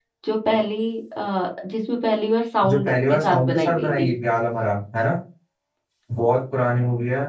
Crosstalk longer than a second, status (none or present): present